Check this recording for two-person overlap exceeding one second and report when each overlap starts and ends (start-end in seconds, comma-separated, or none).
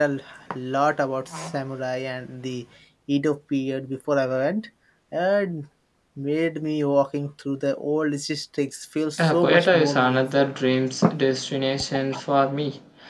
9.2-10.5